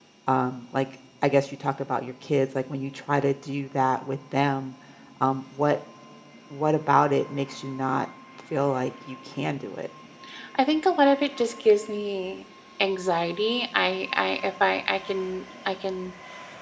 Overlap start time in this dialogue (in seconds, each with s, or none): none